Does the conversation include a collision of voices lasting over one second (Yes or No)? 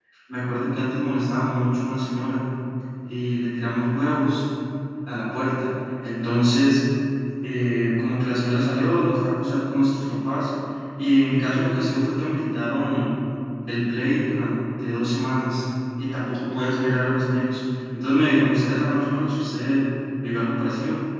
No